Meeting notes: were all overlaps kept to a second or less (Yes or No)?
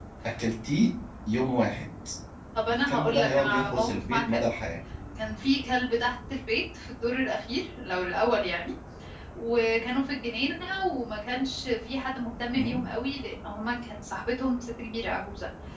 No